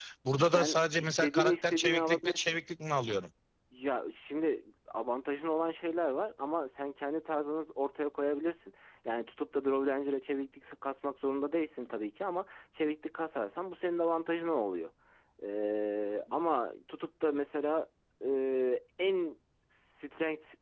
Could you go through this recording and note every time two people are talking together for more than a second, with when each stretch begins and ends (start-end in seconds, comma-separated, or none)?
0.5-2.6